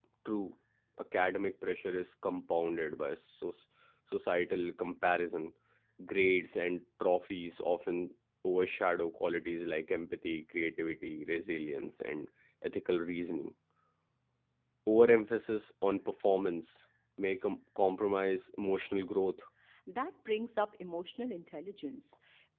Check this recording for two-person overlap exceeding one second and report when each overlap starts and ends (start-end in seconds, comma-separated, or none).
none